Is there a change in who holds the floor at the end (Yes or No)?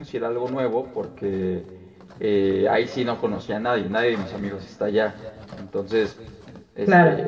No